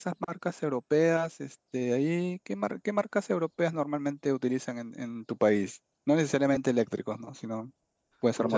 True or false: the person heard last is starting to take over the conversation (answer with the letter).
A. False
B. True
B